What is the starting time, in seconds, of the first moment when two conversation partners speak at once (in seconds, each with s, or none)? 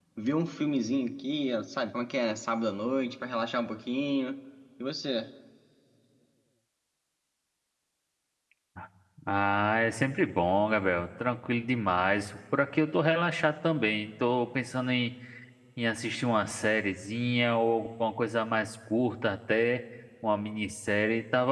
none